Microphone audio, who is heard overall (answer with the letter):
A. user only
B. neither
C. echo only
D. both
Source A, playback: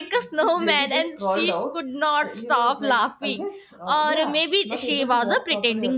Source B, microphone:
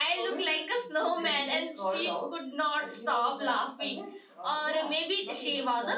C